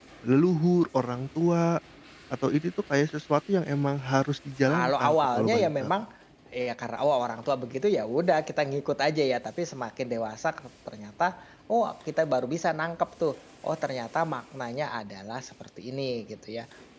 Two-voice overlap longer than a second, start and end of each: 4.7-5.9

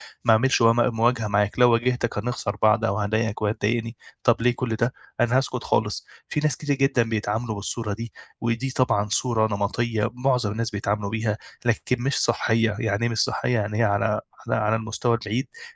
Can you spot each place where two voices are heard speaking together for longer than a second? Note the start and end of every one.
none

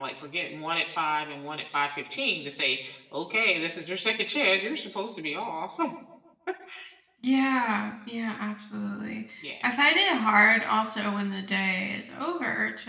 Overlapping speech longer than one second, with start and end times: none

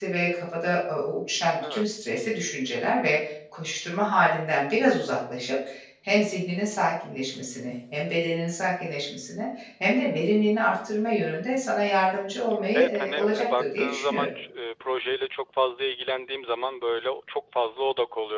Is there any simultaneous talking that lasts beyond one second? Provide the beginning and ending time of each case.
12.7-14.3

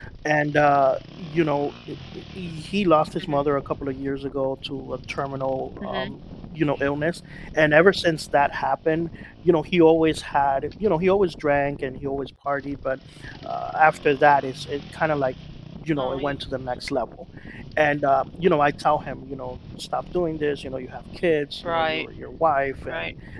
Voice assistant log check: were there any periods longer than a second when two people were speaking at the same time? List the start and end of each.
none

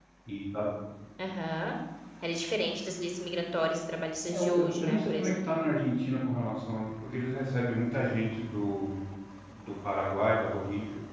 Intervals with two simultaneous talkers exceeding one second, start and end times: 4.2-5.5

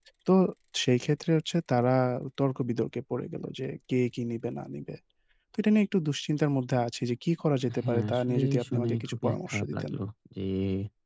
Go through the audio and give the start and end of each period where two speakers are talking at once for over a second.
7.8-9.9

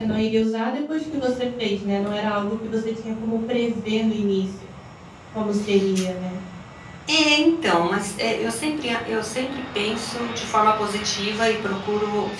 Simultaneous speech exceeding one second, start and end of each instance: none

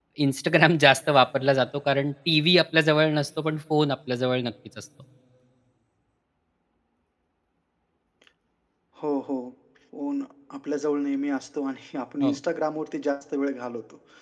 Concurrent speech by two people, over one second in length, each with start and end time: none

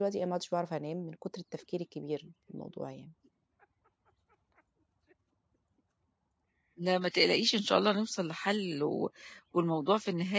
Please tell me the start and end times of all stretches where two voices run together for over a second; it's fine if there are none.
none

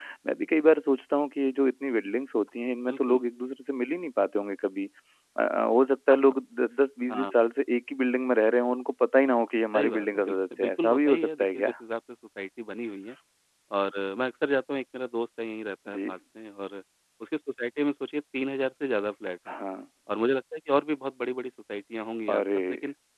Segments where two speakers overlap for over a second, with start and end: 9.8-11.7

